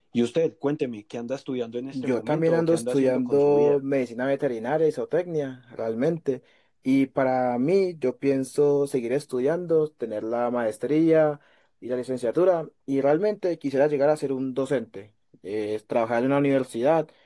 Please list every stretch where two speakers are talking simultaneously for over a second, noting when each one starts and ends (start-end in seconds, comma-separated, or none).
1.9-3.8